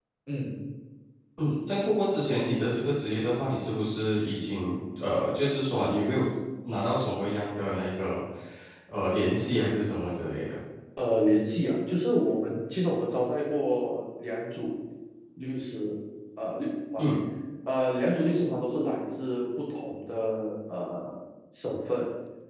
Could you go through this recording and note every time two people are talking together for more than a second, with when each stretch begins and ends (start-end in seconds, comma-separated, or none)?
none